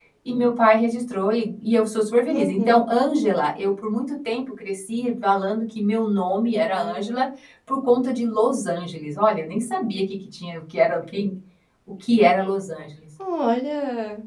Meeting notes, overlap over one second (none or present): none